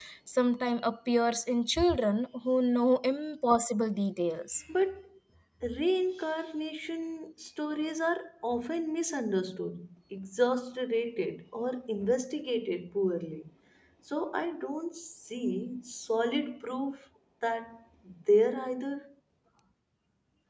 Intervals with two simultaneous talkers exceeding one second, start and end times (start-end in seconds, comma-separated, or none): none